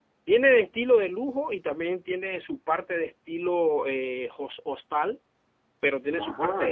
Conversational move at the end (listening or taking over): listening